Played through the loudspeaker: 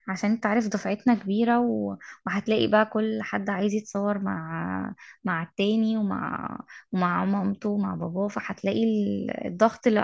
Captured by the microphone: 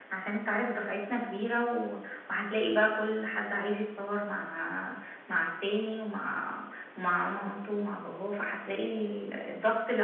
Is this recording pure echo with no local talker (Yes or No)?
Yes